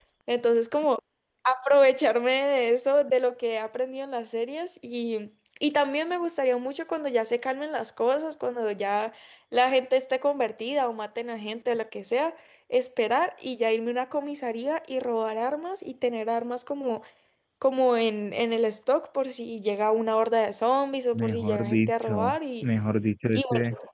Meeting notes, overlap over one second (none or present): present